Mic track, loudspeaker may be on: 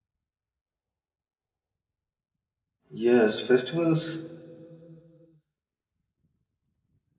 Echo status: none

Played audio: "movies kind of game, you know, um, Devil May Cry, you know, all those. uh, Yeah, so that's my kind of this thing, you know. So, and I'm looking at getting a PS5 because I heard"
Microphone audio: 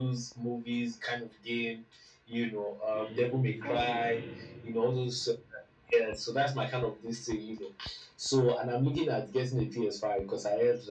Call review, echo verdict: present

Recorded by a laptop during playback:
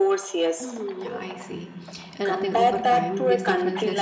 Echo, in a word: present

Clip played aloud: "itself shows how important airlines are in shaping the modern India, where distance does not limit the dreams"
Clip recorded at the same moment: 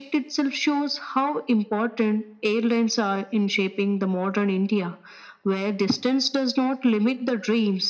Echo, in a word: present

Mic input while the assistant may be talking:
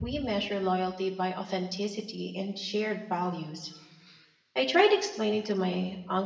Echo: none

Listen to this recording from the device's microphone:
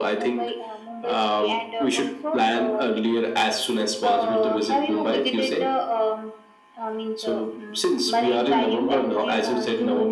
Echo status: present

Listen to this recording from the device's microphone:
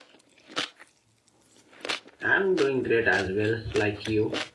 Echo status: none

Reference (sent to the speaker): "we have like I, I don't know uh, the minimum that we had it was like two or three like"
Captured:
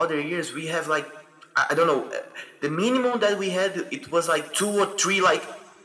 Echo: present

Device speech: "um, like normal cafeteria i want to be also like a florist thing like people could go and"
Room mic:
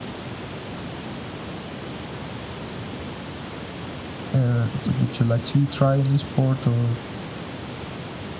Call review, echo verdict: none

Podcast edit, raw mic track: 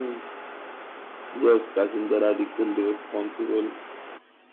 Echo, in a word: present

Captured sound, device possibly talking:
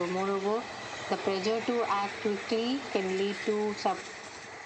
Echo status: present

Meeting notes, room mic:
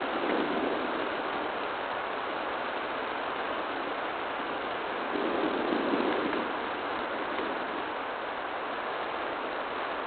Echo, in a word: none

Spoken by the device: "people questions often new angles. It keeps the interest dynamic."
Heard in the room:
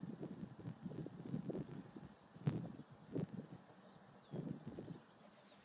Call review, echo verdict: none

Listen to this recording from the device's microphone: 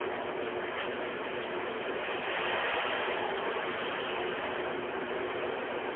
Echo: none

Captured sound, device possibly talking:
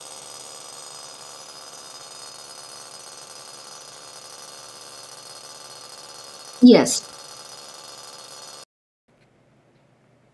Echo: none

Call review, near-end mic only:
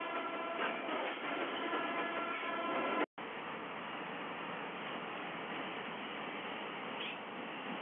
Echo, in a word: none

